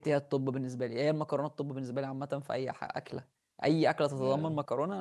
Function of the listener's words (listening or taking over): listening